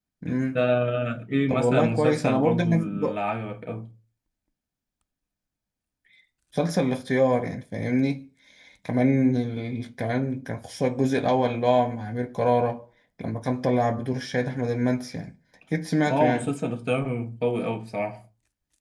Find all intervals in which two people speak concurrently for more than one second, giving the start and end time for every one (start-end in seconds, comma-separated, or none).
1.5-3.2